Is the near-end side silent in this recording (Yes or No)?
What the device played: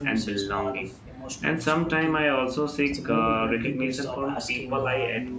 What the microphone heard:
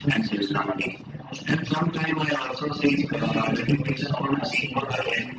Yes